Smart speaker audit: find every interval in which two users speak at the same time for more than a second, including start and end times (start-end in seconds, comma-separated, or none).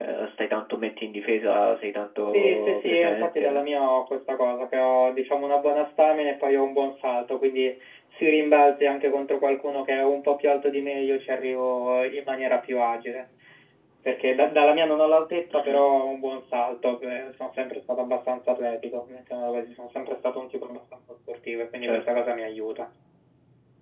2.3-3.7